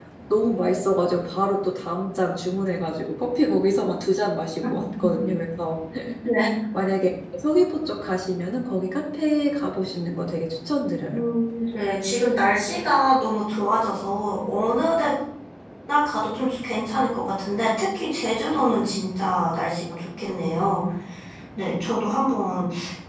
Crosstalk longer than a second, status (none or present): none